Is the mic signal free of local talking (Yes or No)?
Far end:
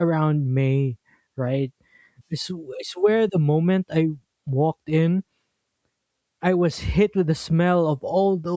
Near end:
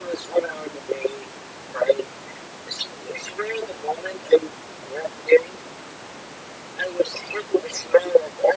Yes